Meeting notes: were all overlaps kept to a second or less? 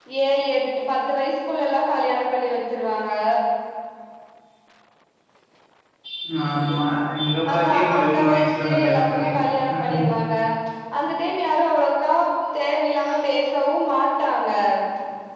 No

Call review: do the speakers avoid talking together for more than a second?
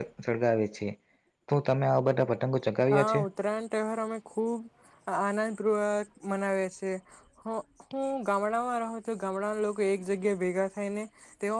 Yes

